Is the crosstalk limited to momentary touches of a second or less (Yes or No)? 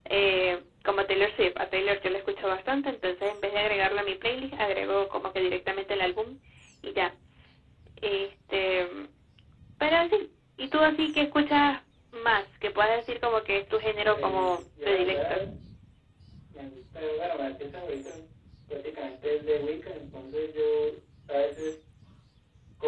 No